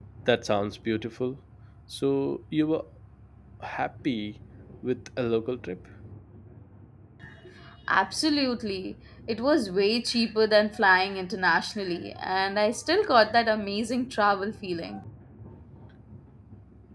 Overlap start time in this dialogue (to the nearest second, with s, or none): none